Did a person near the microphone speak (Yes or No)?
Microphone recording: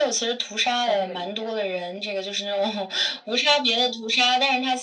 Yes